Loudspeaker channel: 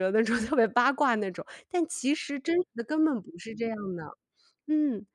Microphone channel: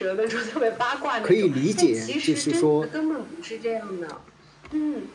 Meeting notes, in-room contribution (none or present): present